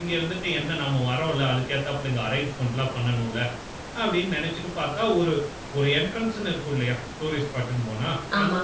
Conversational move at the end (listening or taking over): listening